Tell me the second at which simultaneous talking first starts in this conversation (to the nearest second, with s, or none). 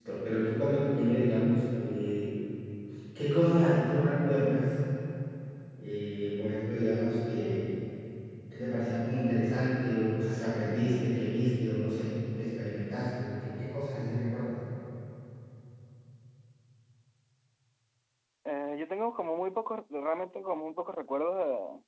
none